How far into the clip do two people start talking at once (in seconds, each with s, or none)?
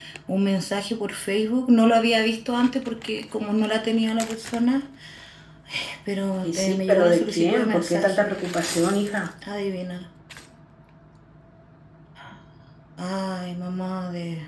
6.4 s